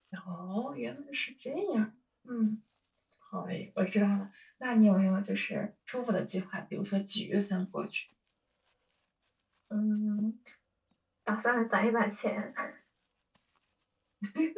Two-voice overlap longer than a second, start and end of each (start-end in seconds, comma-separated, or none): none